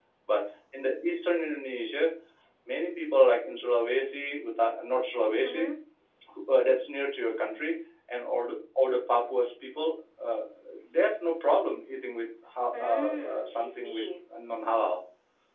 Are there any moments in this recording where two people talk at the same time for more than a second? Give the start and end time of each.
12.8-14.0

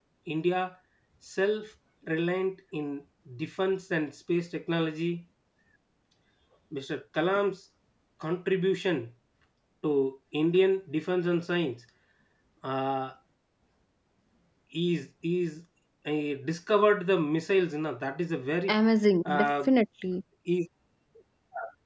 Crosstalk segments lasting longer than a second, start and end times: none

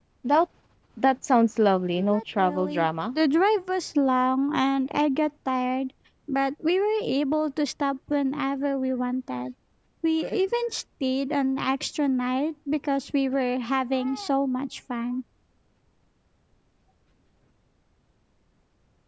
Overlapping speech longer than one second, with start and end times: 1.9-3.1

